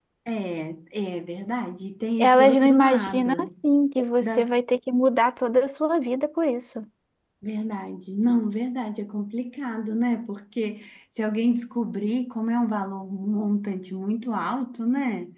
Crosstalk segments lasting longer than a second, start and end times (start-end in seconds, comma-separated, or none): 2.2-3.5